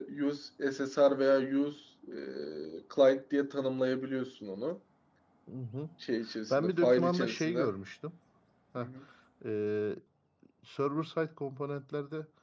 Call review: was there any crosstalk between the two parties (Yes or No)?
Yes